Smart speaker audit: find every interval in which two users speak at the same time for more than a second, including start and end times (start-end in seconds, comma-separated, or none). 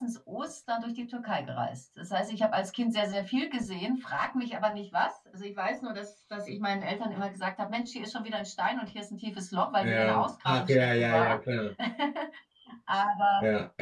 9.8-11.4